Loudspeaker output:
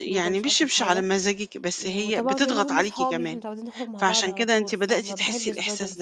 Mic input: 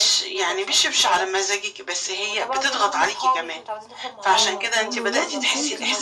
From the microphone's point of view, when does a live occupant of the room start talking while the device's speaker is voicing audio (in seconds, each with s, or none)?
4.3 s